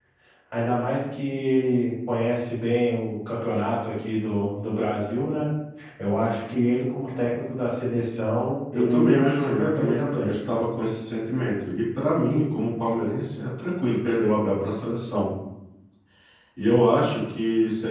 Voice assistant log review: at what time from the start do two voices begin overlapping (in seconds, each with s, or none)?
8.7 s